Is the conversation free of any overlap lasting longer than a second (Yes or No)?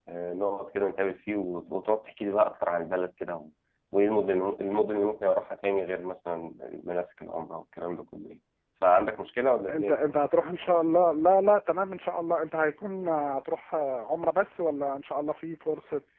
Yes